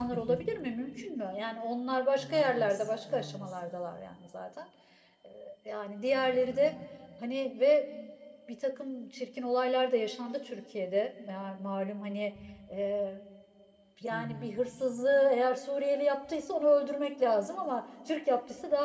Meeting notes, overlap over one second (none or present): present